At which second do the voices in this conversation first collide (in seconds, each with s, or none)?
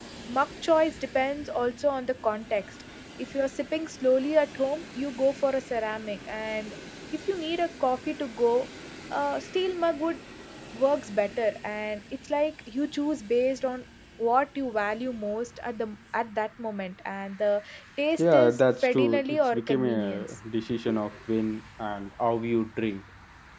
18.2 s